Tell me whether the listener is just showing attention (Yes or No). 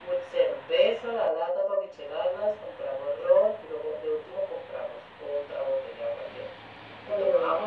Yes